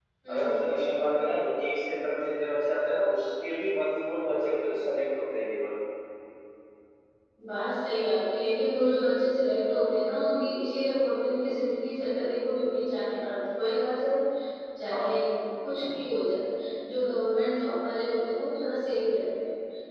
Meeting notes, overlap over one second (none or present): none